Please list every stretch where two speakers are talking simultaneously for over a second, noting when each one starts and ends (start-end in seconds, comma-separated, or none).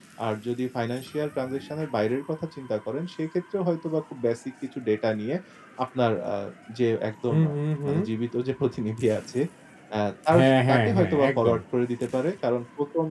10.3-11.6